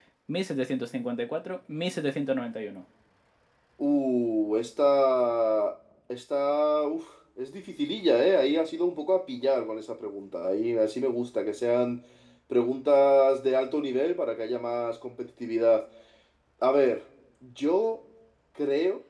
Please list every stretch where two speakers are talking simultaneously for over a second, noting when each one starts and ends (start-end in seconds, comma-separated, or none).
none